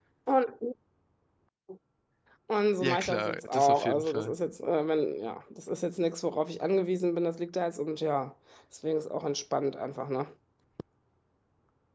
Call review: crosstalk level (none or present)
present